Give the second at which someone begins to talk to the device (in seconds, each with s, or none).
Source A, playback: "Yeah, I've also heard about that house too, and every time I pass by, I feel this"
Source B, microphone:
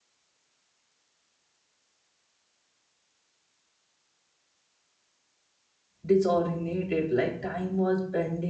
6.0 s